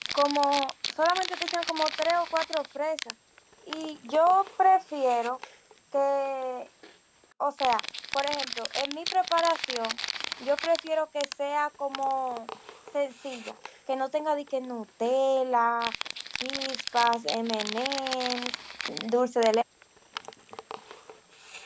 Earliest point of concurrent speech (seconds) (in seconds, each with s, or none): none